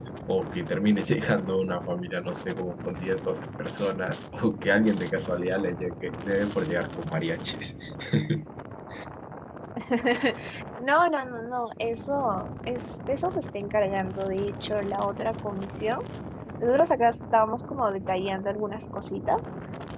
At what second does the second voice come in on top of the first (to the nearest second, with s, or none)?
none